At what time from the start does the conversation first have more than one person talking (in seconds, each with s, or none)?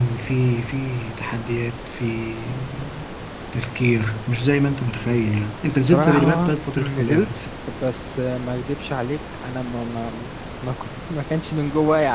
5.9 s